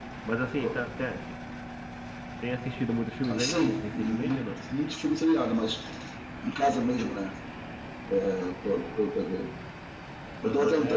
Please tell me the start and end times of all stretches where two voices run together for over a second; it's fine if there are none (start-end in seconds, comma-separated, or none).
3.4-4.6